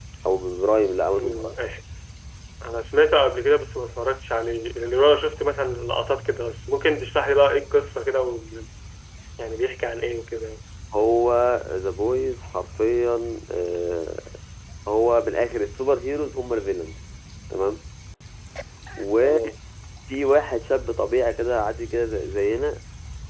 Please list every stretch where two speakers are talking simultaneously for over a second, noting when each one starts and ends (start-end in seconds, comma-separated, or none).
none